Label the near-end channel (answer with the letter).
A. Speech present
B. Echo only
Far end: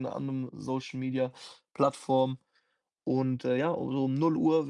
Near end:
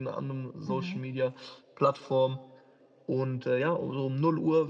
A